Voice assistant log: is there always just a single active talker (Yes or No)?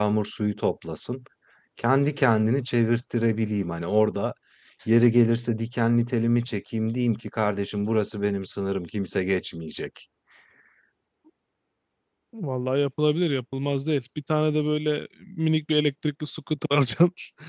Yes